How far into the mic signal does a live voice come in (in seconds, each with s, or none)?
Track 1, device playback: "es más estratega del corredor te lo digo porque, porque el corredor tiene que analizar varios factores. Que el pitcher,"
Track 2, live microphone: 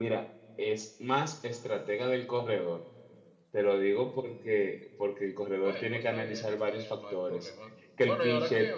5.6 s